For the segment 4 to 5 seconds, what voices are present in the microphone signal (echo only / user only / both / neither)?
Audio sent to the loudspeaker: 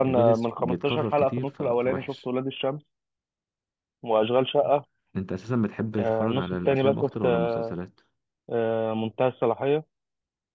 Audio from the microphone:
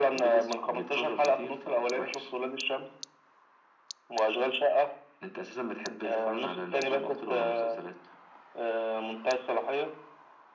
echo only